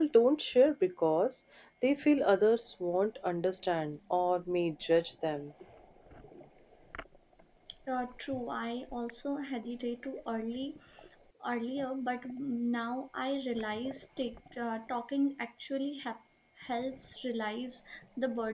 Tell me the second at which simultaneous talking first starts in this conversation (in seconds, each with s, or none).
none